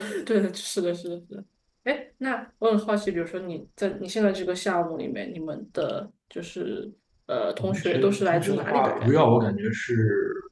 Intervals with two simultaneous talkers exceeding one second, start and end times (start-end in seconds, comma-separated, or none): 7.6-9.2